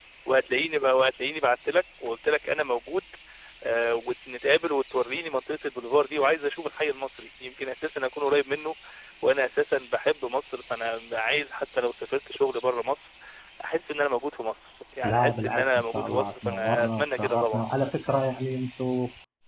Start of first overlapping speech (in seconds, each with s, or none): 15.0 s